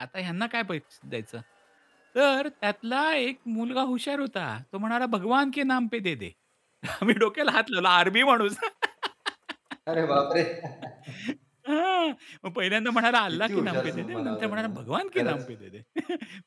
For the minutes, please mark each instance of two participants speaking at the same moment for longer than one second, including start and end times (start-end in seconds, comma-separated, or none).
13.3-14.8